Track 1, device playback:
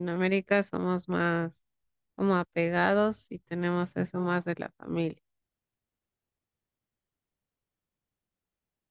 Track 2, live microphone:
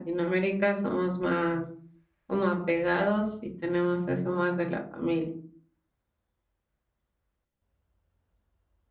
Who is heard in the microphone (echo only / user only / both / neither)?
echo only